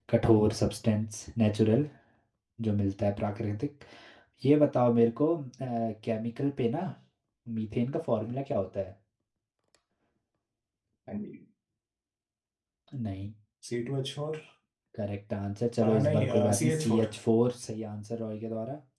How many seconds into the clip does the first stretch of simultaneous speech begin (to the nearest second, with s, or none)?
16 s